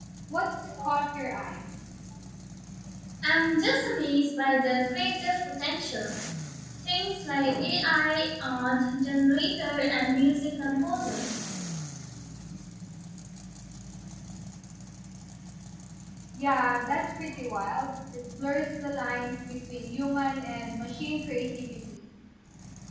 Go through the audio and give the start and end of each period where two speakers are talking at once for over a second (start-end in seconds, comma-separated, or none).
none